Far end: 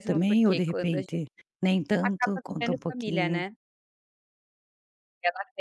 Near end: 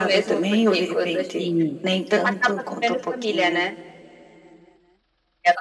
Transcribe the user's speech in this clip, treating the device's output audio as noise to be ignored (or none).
sim.